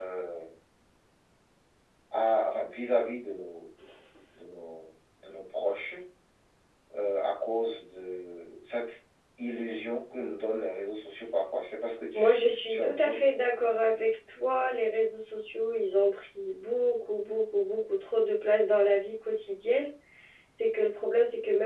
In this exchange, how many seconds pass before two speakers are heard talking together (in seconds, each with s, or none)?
12.1 s